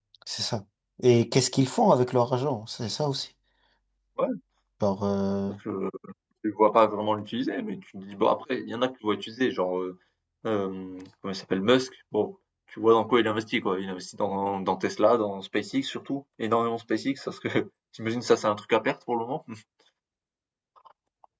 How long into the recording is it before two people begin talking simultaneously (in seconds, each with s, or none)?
none